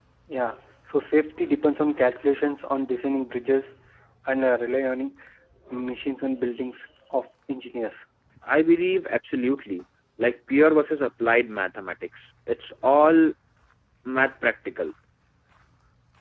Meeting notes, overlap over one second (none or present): none